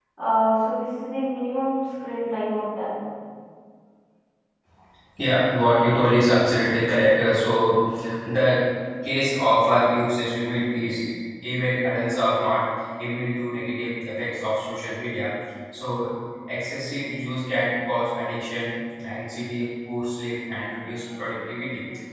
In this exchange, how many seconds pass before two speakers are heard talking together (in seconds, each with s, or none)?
none